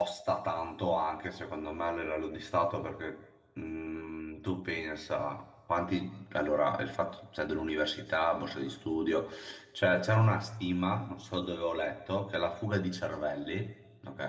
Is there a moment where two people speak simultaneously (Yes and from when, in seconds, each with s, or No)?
No